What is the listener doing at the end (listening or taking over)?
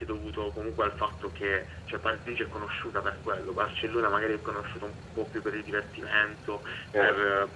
listening